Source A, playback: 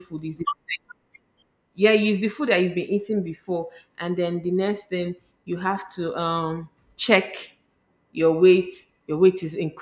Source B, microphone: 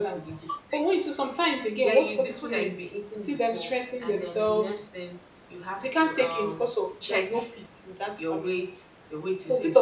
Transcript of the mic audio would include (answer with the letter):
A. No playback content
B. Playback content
B